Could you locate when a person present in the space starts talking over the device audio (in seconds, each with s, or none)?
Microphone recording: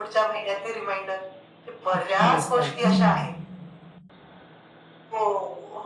1.9 s